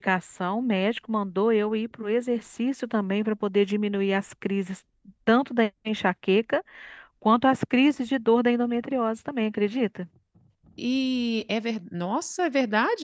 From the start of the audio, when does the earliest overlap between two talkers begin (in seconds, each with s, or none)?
none